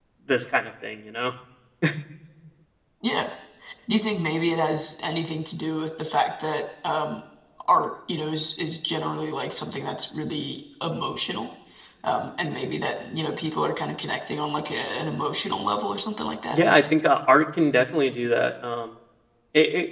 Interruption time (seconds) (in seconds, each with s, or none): none